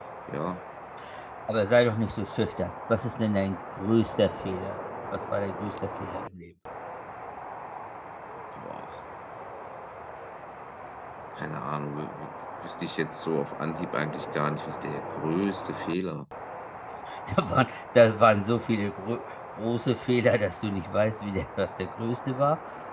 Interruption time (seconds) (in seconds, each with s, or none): none